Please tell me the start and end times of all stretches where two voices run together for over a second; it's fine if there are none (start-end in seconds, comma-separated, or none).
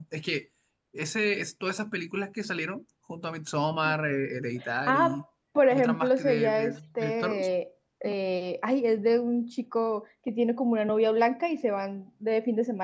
5.7-7.5